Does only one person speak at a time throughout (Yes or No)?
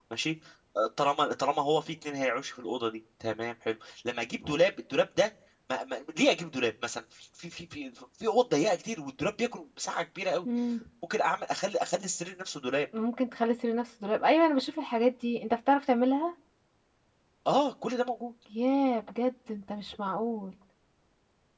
Yes